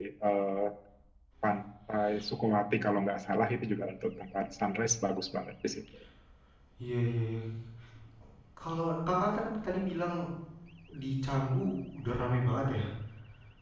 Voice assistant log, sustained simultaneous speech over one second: none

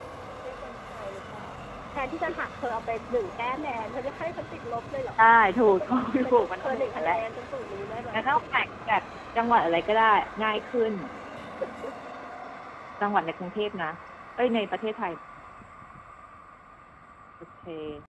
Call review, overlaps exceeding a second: present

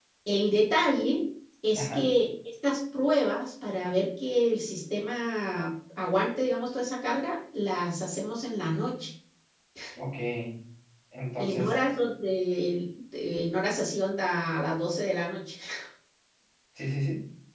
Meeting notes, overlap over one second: none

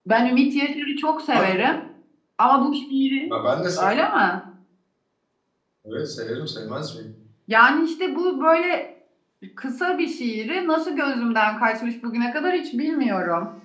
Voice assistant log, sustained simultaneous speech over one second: none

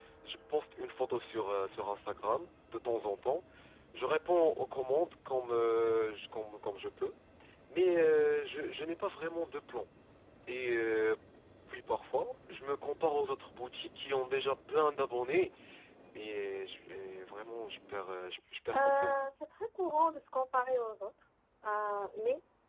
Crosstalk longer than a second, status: none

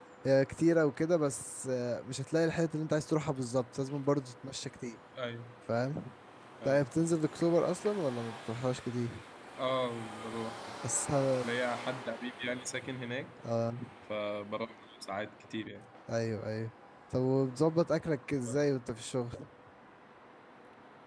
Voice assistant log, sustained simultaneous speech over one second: none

